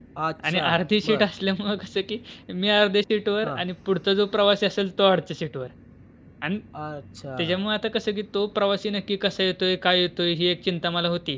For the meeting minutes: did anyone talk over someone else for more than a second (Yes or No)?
No